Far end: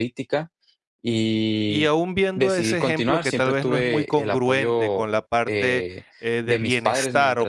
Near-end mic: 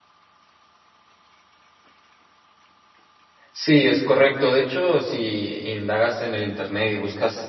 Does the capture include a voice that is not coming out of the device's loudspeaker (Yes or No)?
Yes